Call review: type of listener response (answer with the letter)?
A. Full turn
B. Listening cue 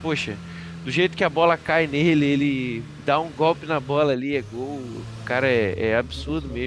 A